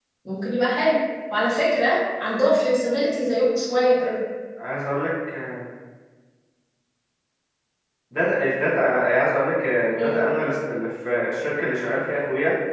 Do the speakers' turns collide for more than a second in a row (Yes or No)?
No